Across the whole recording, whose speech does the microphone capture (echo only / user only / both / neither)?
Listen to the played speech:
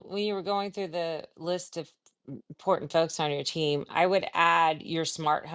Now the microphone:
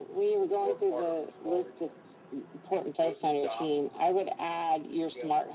both